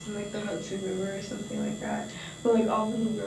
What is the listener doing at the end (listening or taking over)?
listening